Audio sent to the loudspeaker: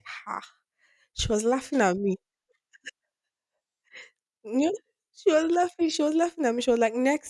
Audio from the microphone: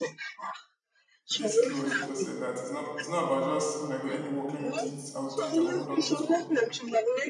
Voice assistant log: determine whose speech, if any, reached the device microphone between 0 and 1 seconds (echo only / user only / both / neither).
echo only